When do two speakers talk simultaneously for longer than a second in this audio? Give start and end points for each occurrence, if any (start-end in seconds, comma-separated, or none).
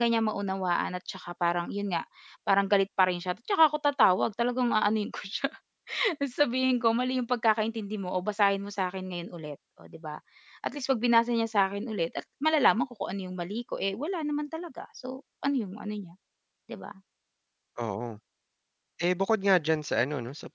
none